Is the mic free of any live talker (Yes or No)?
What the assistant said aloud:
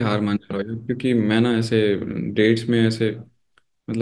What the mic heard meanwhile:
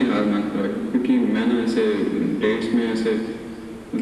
Yes